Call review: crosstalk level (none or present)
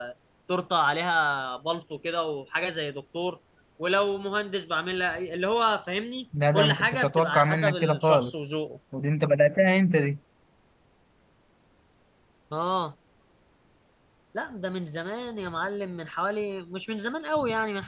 present